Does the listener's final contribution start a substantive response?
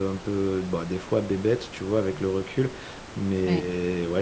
No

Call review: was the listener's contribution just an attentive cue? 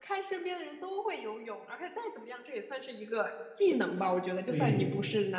Yes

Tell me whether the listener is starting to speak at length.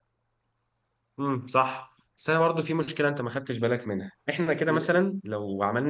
No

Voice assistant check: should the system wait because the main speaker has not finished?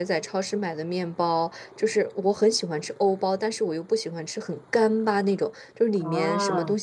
Yes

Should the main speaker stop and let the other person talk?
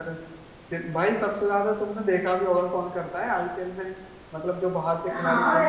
Yes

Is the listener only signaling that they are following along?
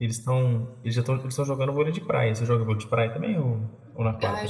No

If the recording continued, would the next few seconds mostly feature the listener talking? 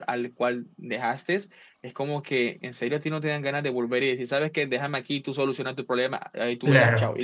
Yes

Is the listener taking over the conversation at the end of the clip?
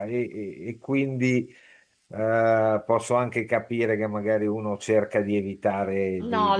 Yes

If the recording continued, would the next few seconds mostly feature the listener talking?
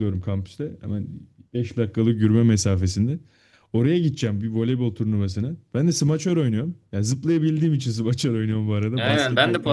Yes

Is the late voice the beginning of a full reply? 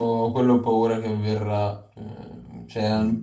No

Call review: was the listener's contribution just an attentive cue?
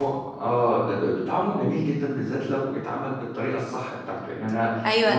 No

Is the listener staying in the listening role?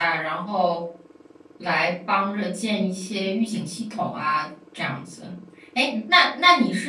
Yes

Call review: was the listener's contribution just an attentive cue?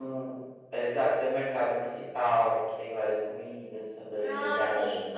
No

